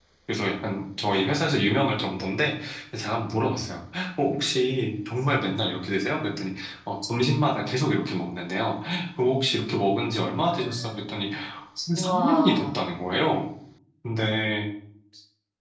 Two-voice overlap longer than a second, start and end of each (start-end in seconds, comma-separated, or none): 12.0-13.4